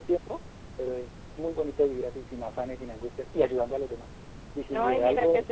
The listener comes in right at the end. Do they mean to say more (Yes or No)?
Yes